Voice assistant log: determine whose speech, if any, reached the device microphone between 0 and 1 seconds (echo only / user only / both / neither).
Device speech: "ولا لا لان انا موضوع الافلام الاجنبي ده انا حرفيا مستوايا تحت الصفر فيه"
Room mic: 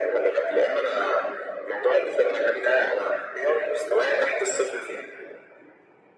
echo only